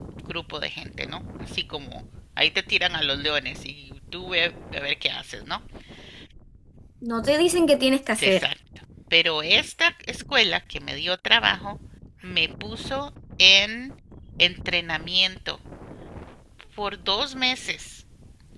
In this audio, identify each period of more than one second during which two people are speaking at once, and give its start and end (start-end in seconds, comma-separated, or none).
none